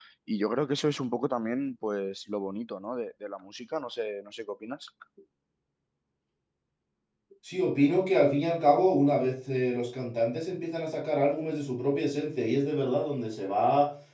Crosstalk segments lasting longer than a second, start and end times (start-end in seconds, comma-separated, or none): none